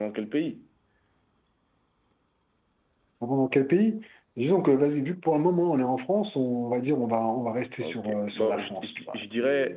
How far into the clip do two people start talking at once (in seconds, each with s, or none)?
7.8 s